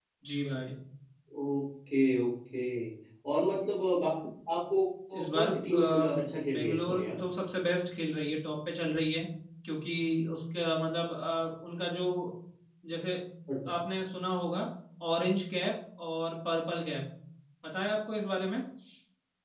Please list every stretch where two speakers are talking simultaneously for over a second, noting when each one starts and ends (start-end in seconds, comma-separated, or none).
5.3-7.2